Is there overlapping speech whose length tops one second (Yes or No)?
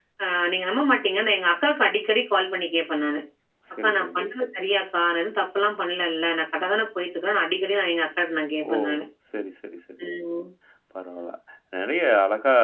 No